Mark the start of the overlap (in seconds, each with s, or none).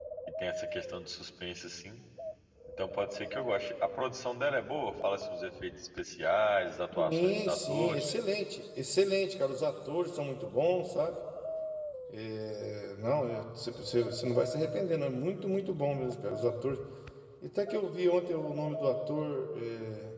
6.9 s